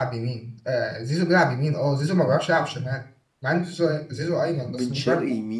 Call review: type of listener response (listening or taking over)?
taking over